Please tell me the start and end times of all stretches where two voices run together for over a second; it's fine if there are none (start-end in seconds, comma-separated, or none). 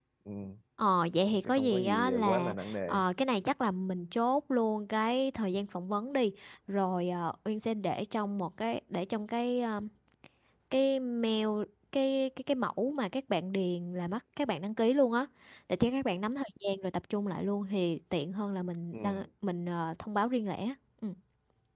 1.4-3.0